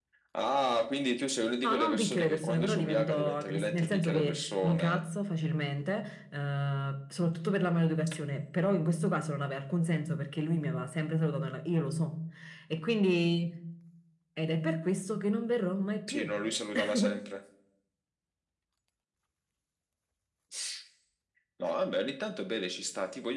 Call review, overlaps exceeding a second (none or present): present